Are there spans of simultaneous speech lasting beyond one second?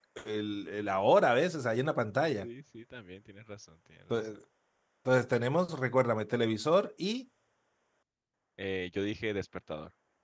No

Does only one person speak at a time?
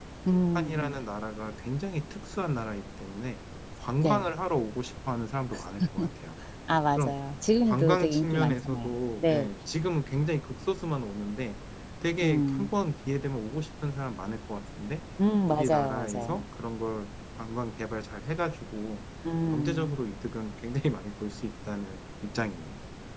No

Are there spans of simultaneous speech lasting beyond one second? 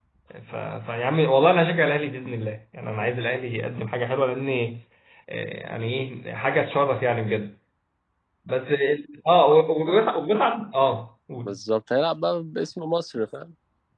No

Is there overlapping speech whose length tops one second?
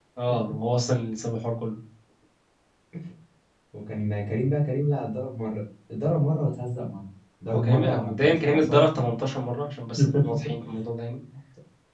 Yes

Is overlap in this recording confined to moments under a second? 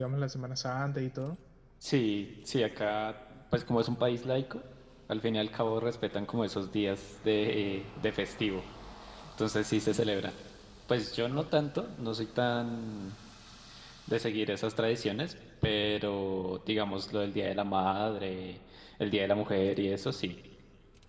Yes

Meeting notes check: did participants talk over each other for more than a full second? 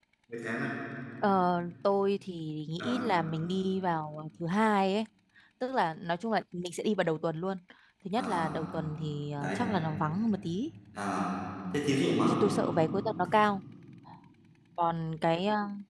No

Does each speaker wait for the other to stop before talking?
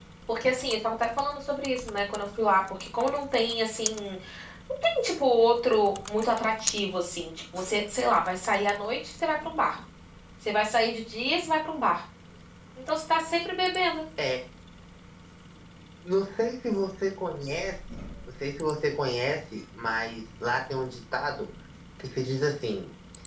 Yes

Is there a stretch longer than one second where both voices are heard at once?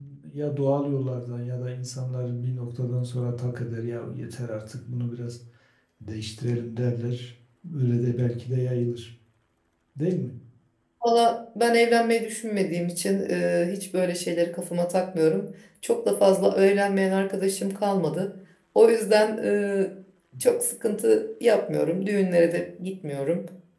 No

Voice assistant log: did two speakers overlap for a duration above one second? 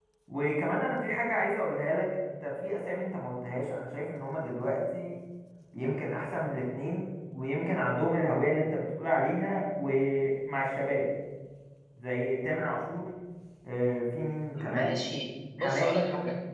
No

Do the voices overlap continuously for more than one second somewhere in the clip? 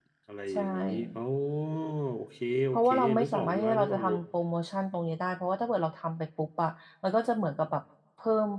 Yes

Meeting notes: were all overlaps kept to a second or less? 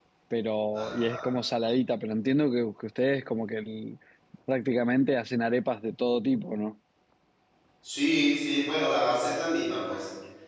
Yes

